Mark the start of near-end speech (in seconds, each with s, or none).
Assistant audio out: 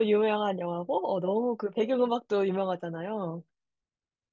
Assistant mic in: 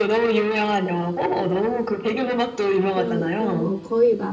2.9 s